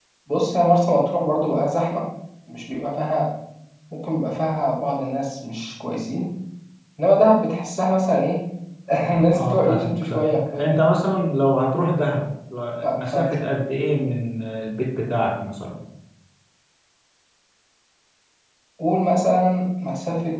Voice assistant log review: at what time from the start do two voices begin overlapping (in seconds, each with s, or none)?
9.3 s